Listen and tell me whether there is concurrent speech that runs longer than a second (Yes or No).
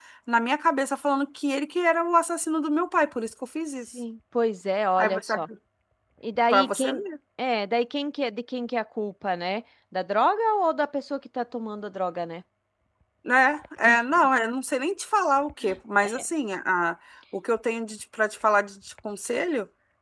No